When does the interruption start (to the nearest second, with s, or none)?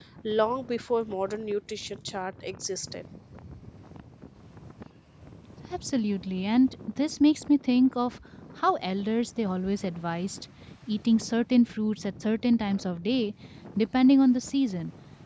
none